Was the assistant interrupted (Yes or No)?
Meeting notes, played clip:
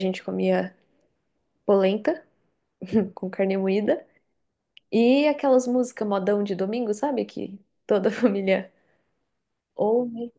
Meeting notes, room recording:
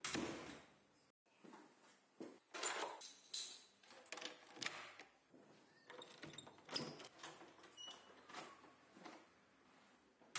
No